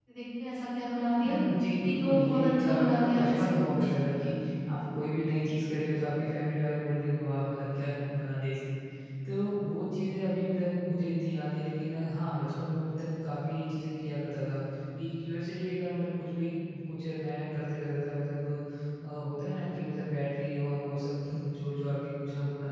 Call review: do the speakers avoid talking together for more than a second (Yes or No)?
No